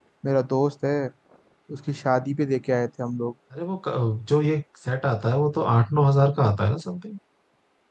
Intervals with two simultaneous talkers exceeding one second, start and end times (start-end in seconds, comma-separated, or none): none